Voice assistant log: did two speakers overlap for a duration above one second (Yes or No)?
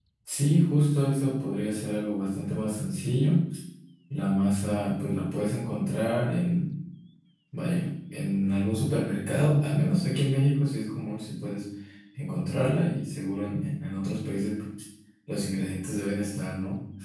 No